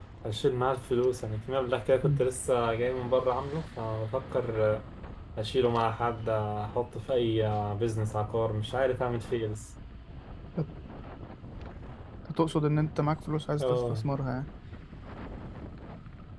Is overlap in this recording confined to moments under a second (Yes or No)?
Yes